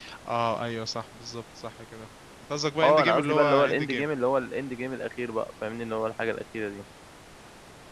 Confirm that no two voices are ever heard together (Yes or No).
No